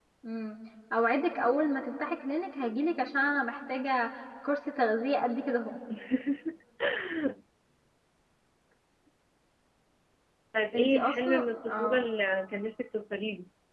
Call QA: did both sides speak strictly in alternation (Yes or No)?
No